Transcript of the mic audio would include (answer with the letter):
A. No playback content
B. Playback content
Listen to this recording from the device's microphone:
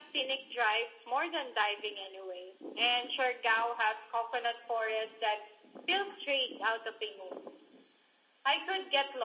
B